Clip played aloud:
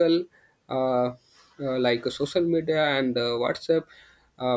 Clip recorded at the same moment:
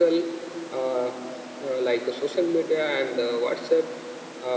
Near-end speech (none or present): none